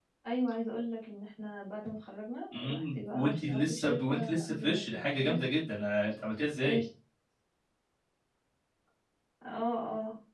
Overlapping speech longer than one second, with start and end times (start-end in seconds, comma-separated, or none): 2.5-5.4